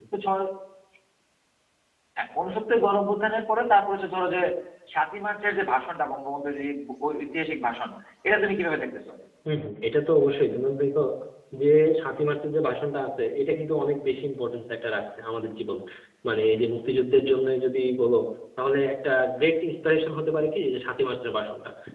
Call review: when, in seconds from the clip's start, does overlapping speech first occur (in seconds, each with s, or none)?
none